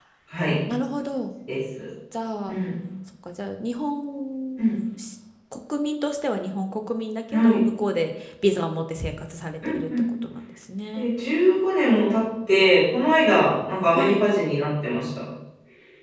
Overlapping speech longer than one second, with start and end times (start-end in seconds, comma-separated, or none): none